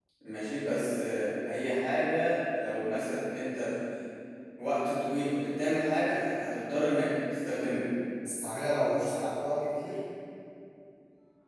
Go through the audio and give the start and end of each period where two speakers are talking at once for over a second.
none

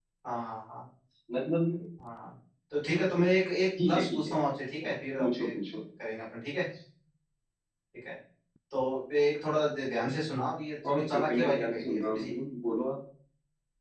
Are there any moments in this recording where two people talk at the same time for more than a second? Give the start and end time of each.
10.9-12.3

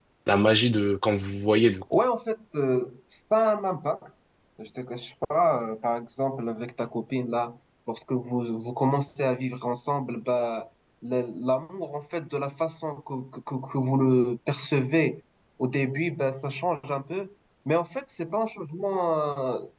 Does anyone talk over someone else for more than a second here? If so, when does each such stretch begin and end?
none

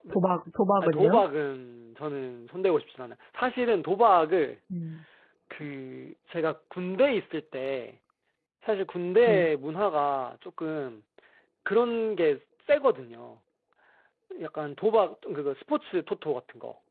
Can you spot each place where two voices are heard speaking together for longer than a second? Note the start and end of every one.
none

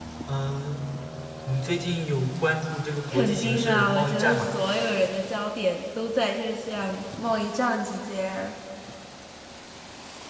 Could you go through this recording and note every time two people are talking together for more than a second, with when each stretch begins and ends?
3.1-4.4

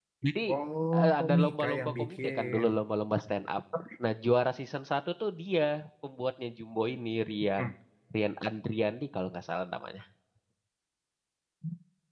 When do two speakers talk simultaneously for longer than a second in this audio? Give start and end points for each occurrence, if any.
1.0-2.6

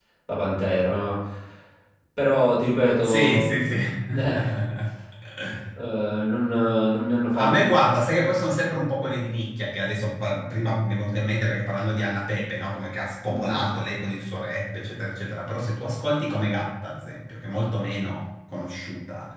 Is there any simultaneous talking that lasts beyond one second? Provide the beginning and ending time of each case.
none

